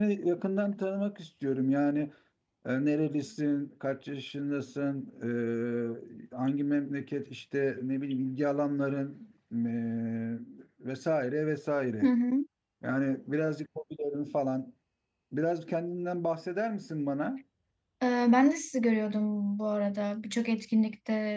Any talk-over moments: No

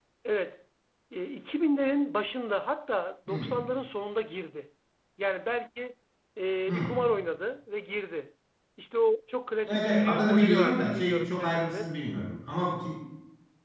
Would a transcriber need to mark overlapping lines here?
Yes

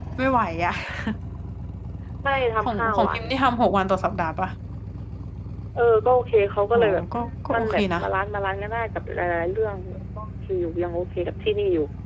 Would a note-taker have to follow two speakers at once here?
Yes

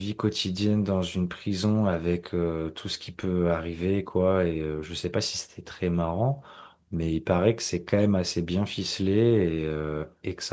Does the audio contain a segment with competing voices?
No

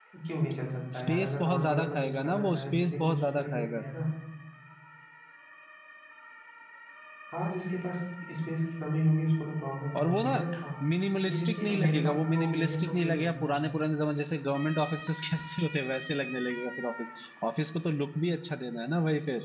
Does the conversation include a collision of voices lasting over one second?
Yes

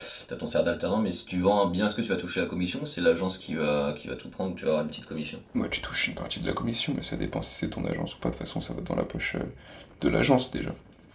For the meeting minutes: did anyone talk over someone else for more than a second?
No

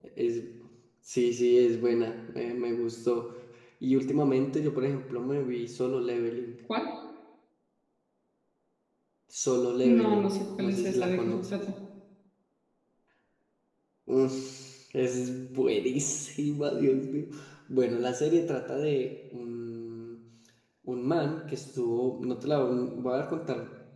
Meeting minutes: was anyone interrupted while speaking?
Yes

